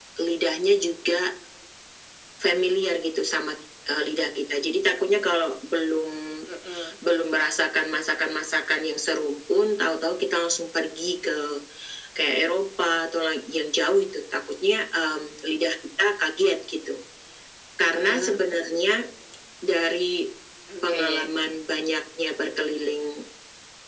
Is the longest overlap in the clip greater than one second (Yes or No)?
No